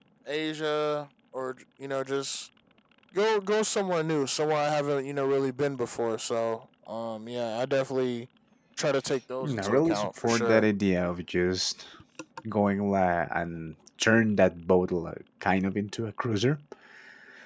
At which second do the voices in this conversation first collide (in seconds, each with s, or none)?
9.4 s